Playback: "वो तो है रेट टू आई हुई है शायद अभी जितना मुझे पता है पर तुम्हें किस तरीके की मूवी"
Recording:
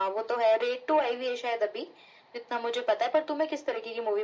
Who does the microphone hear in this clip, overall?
echo only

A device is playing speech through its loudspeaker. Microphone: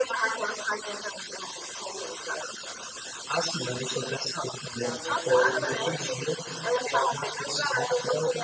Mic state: both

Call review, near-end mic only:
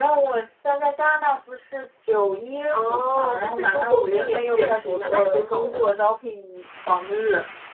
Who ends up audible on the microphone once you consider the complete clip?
both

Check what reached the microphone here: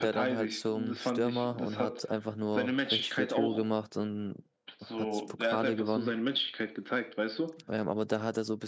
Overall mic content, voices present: both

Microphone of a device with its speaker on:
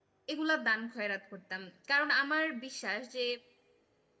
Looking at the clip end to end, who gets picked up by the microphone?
user only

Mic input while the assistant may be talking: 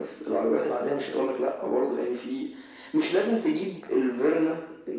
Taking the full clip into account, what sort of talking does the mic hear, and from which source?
echo only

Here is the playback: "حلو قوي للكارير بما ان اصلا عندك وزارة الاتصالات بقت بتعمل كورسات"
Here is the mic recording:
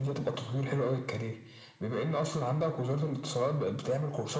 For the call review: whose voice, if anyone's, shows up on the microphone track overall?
echo only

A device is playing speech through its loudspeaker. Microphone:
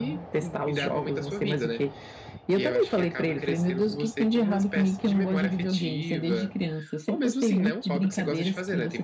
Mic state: echo only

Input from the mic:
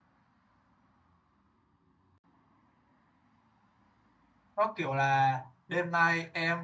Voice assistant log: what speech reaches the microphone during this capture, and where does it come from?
user only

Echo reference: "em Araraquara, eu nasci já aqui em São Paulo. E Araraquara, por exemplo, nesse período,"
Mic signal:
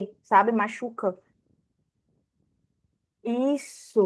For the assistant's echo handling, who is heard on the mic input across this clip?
user only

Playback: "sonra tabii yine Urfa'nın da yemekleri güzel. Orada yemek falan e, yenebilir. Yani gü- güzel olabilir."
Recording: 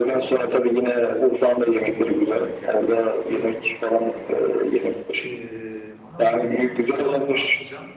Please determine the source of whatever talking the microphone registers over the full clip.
both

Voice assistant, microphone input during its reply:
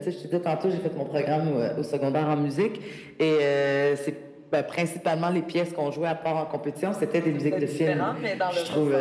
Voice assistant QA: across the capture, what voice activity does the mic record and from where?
both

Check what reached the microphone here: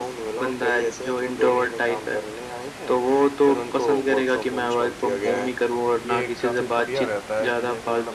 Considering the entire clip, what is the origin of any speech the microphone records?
both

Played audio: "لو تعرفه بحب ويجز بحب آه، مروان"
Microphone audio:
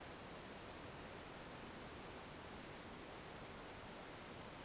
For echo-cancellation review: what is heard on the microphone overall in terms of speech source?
neither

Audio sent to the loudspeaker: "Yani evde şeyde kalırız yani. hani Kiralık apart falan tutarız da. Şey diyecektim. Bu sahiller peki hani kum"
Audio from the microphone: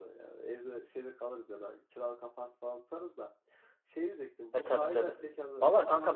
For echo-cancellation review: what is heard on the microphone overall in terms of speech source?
both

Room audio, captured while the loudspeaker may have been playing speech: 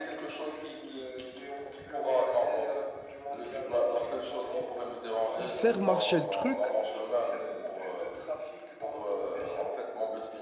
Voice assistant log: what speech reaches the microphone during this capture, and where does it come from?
both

